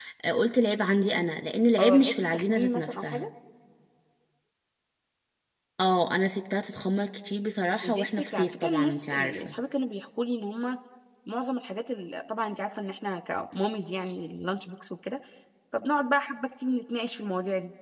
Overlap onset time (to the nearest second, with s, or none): 2 s